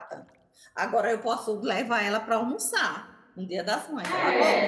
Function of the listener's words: taking over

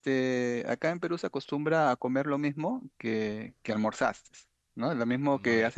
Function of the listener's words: taking over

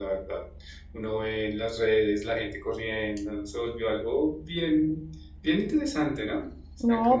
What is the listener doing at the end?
taking over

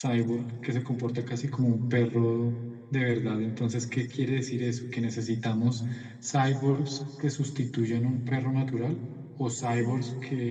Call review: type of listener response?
listening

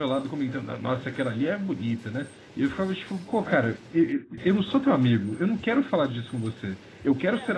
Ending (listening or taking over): listening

